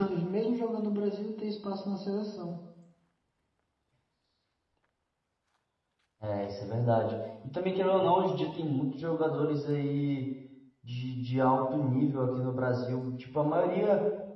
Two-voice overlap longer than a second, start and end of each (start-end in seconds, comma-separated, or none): none